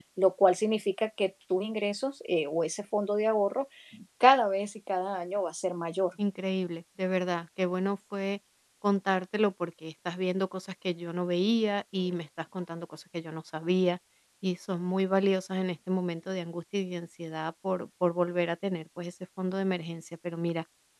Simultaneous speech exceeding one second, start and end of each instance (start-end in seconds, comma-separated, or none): none